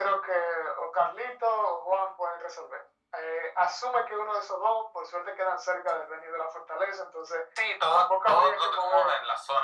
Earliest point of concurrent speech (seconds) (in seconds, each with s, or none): 7.9 s